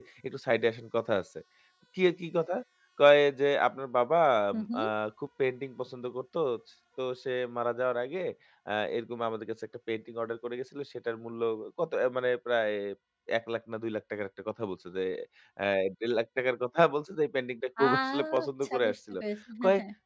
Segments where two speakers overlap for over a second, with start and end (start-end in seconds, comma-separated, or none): 17.9-19.2